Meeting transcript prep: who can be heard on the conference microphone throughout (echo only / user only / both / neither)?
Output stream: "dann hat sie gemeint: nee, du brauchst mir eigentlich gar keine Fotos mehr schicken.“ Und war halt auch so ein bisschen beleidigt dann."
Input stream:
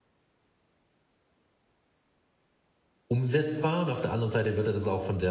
user only